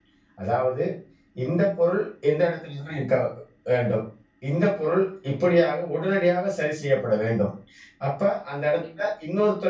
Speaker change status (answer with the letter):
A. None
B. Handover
A